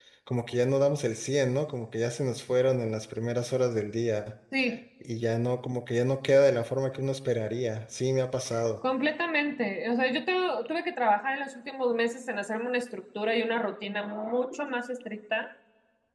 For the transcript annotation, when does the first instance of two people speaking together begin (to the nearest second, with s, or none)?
none